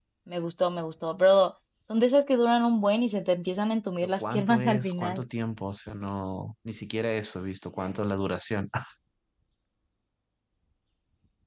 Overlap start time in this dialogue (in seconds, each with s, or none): 4.0 s